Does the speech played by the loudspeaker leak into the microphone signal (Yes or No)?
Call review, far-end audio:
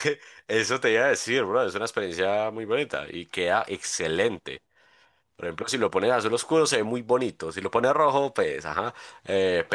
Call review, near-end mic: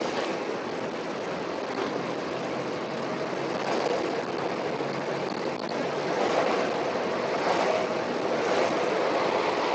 No